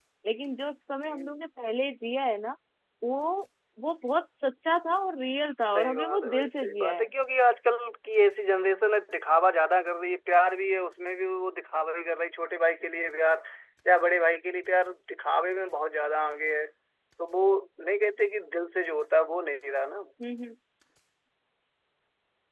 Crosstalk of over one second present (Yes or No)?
Yes